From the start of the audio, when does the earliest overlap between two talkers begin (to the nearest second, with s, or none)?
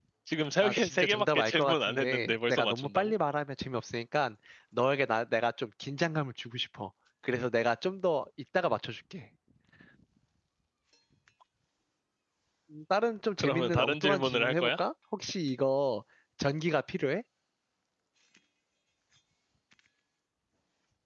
1 s